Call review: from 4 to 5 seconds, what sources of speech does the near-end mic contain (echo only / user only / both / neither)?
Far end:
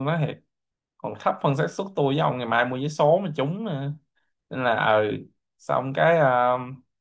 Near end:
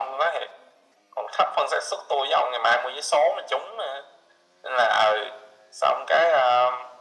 echo only